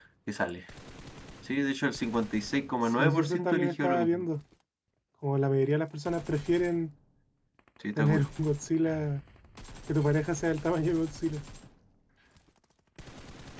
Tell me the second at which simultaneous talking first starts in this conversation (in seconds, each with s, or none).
3.0 s